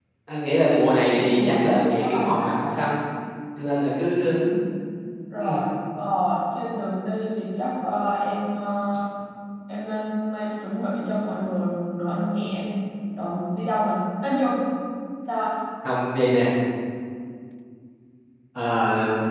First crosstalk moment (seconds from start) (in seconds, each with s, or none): 1.0 s